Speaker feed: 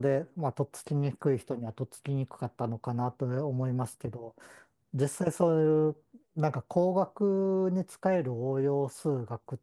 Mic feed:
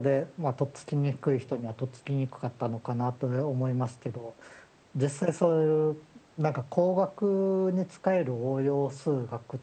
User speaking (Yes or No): No